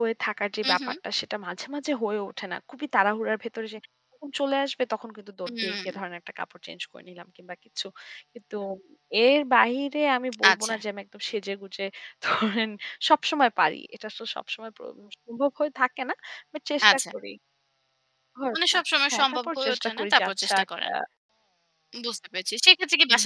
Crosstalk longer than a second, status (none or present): present